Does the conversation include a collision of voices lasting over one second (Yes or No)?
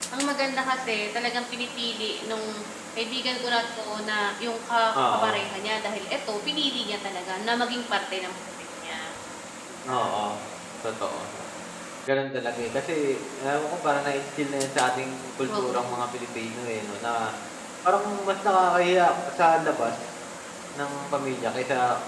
No